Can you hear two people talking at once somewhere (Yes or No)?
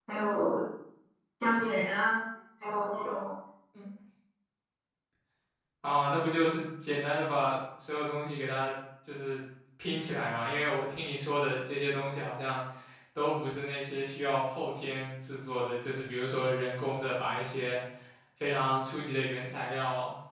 No